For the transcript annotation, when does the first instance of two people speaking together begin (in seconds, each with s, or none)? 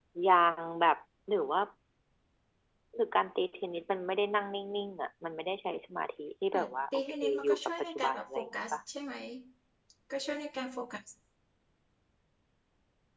6.5 s